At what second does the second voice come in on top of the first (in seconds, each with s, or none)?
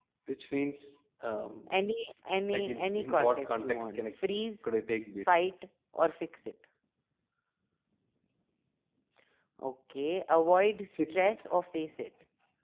2.5 s